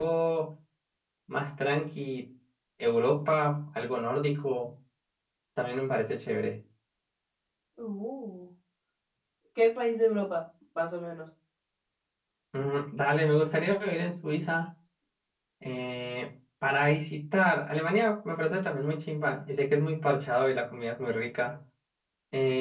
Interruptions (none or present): none